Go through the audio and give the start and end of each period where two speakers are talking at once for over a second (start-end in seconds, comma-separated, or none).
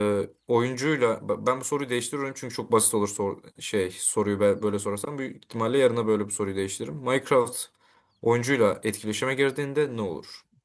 none